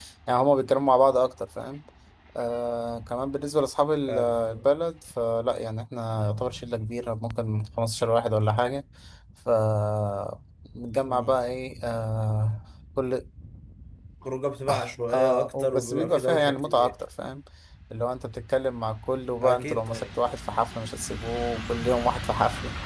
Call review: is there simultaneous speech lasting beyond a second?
Yes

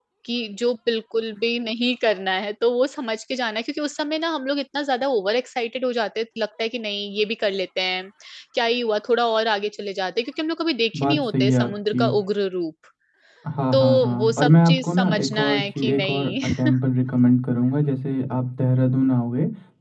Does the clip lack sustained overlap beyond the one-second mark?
No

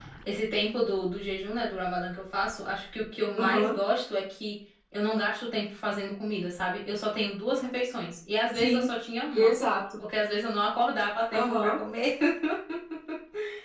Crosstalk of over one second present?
No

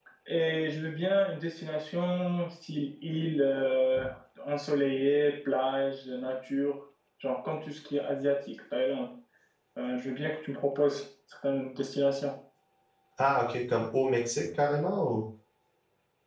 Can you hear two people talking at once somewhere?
No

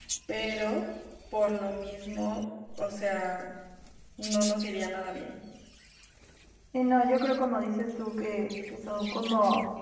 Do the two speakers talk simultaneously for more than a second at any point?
No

